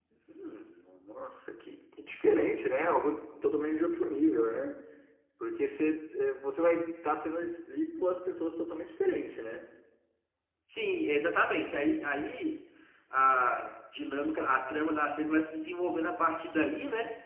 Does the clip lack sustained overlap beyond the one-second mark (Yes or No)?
Yes